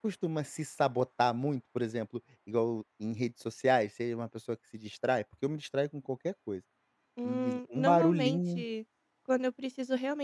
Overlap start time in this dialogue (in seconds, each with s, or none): 7.2 s